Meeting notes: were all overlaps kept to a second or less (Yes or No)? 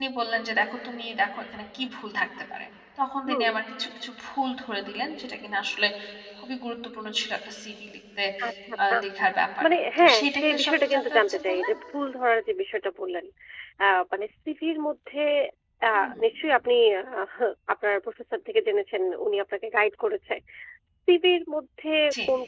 No